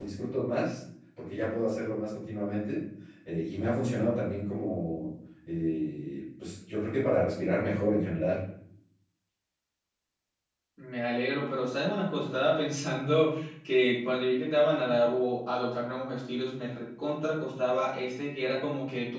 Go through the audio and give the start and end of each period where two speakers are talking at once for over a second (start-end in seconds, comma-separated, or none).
none